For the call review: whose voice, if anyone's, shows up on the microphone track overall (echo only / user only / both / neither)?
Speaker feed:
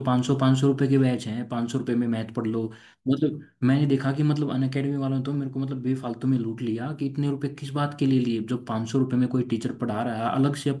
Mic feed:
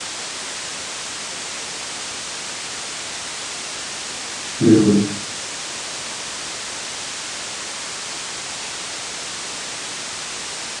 user only